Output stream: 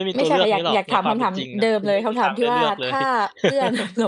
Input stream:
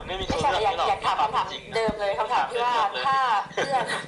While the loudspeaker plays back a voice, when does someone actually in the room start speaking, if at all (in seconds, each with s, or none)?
none